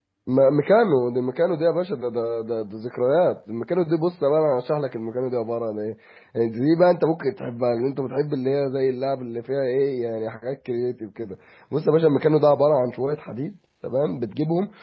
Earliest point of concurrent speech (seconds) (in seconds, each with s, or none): none